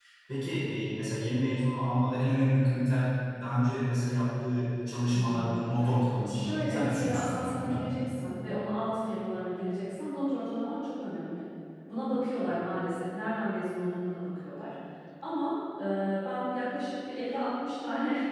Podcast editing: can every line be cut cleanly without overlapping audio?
No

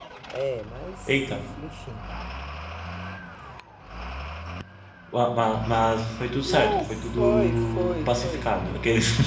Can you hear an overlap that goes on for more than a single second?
Yes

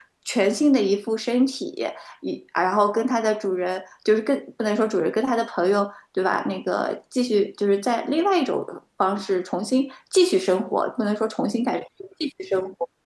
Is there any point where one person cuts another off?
No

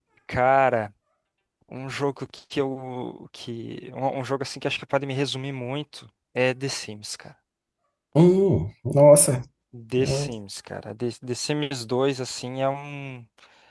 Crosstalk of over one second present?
No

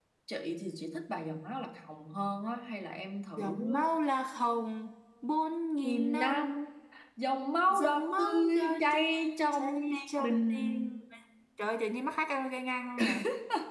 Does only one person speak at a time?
No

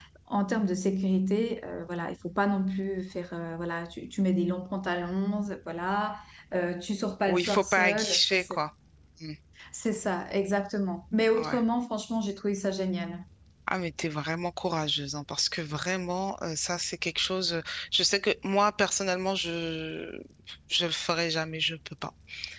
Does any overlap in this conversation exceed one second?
Yes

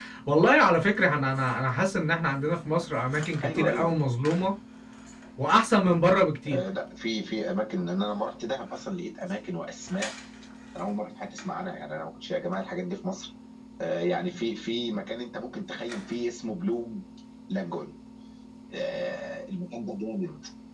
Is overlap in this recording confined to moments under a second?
Yes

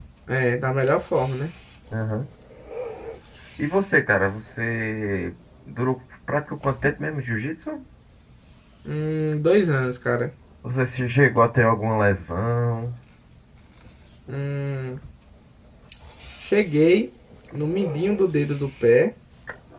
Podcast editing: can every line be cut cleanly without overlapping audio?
Yes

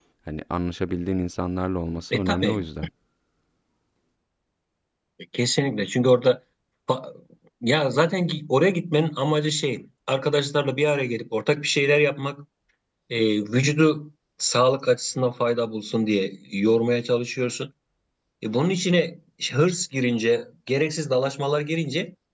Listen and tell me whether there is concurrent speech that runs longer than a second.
No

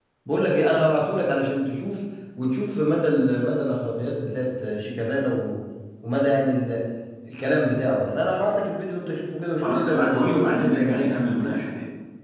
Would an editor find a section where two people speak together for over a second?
Yes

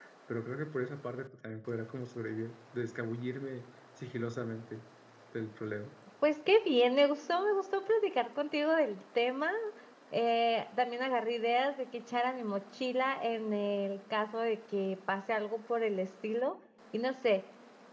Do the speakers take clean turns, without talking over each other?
Yes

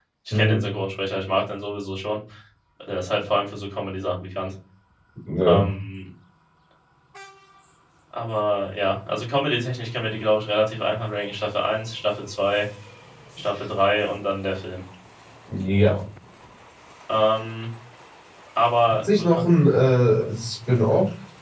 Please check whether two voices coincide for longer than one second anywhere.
No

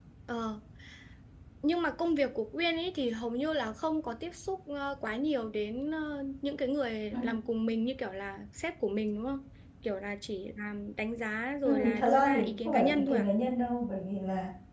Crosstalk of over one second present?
Yes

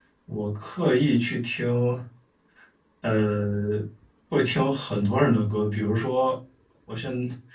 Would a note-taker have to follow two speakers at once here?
No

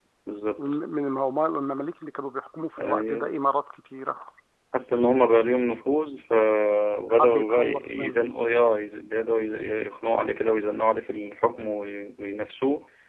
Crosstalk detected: Yes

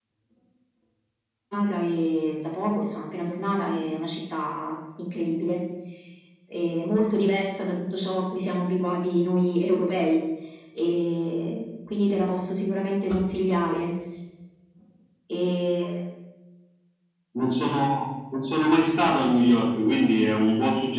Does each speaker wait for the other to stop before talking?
Yes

